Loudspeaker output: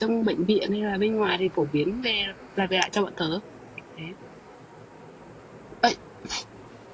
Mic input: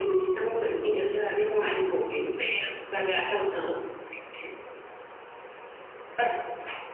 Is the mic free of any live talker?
Yes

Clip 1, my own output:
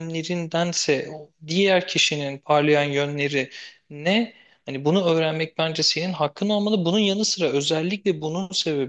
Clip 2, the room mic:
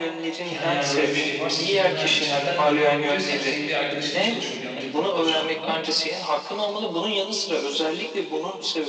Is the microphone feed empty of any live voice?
No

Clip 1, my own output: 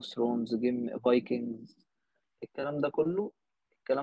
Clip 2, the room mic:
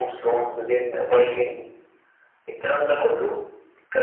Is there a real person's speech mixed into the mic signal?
No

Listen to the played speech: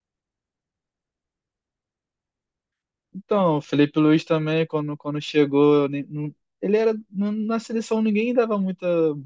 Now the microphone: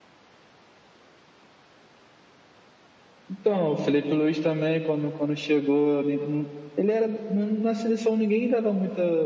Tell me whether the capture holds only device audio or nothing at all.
Yes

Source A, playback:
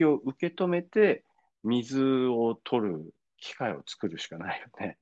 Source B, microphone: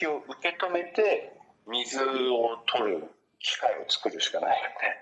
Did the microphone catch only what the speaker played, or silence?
Yes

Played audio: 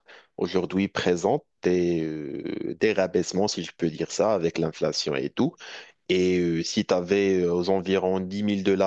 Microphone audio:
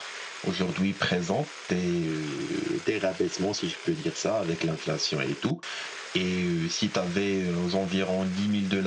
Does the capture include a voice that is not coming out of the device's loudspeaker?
No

